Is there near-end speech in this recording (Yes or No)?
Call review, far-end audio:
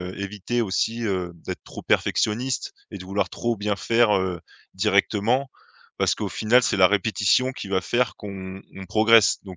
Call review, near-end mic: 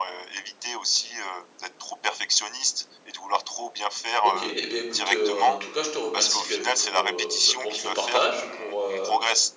Yes